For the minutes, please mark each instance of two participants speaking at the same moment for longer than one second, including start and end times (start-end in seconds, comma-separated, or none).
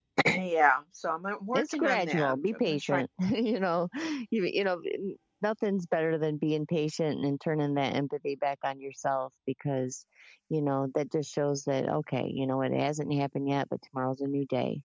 1.5-3.0